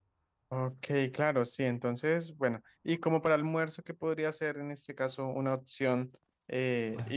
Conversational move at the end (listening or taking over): listening